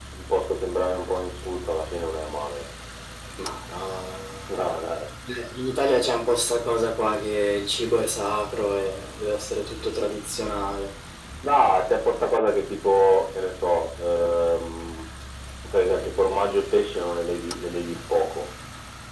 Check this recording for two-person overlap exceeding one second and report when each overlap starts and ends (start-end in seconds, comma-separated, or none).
none